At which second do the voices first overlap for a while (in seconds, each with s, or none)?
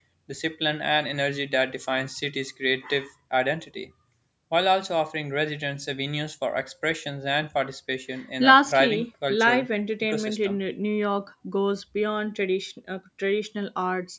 8.4 s